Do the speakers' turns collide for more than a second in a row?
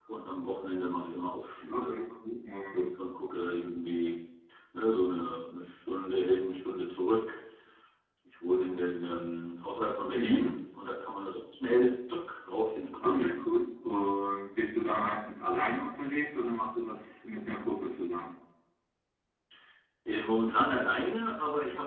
No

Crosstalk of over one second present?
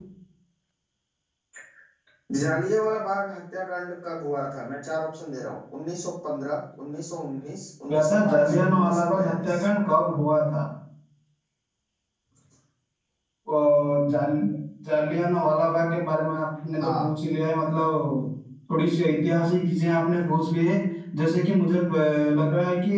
Yes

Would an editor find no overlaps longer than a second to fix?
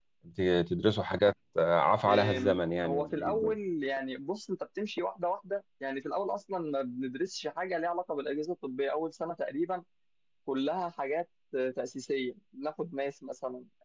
No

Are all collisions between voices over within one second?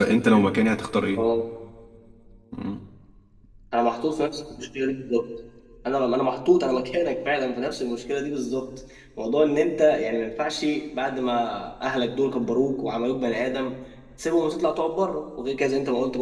Yes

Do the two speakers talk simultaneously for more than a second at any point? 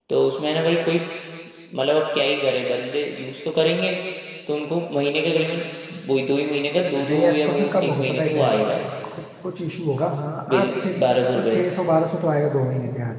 Yes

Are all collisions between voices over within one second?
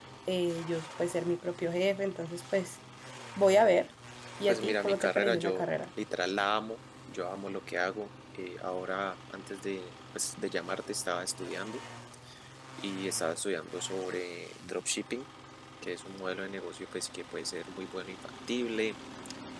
No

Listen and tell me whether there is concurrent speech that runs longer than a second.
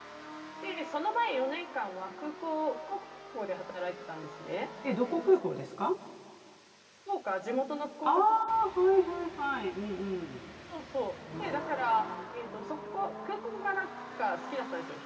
No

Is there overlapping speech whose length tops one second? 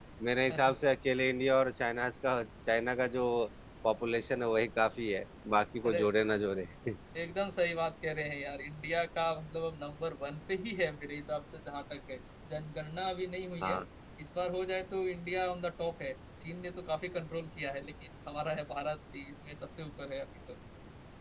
No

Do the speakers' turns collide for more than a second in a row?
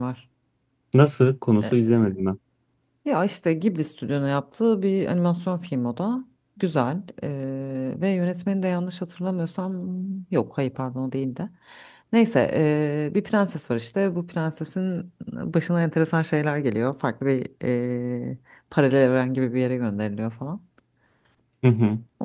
No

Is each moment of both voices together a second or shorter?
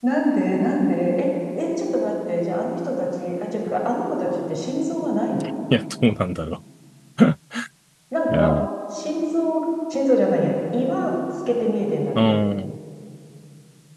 Yes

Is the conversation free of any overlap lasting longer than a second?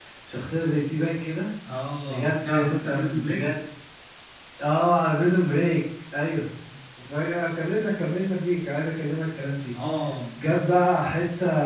No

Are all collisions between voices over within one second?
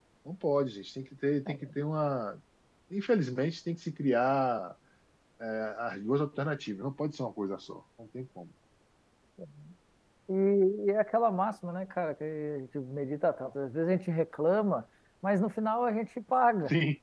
Yes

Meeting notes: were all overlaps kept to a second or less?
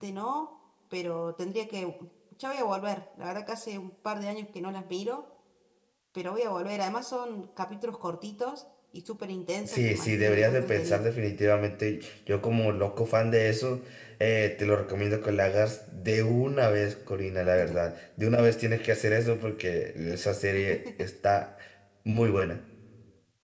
No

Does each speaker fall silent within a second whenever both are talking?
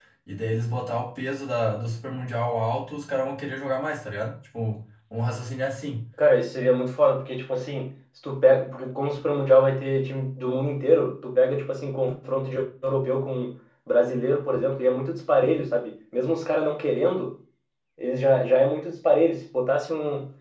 Yes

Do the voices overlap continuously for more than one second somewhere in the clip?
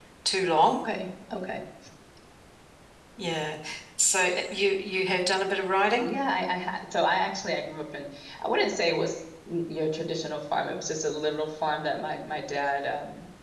No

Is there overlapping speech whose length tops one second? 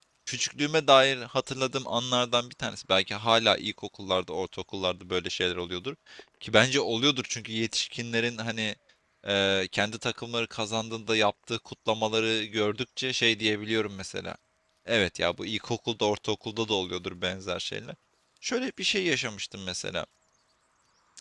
No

